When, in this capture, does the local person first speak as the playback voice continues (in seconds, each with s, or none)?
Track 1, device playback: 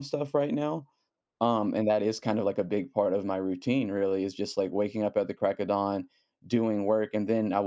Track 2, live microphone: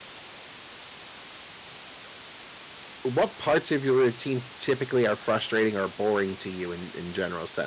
3.0 s